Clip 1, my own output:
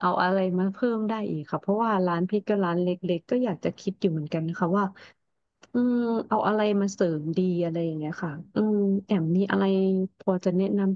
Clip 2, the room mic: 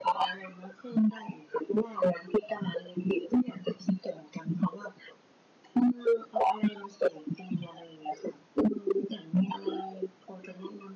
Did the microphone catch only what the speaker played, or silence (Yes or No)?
Yes